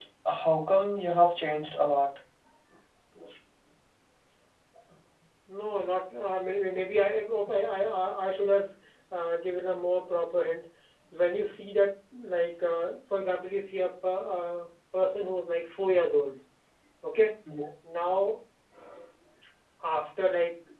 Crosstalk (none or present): none